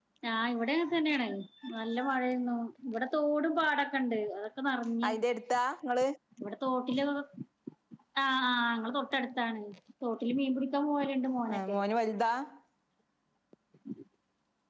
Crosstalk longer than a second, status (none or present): none